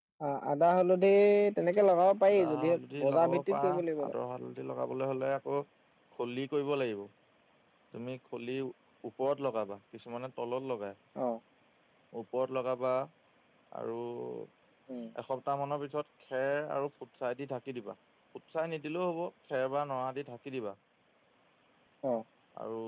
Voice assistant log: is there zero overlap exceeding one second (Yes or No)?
No